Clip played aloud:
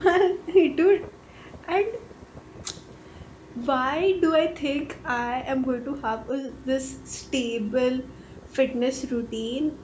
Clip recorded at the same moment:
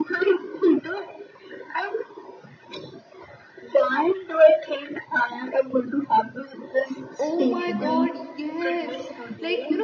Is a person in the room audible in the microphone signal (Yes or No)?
Yes